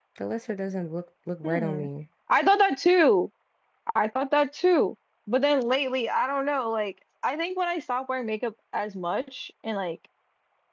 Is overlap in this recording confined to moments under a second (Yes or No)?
Yes